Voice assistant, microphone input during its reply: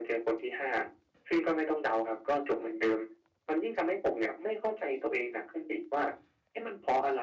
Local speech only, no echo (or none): none